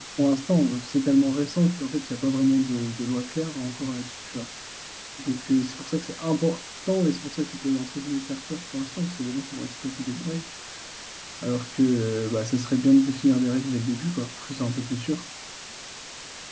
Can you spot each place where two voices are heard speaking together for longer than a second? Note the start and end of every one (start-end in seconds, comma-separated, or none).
none